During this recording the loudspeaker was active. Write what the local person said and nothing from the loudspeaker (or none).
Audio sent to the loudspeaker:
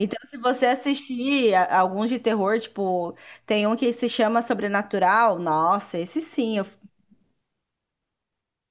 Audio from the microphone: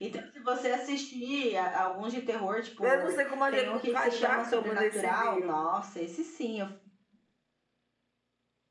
Eu não sei como a gente não caiu da cama nesse dia.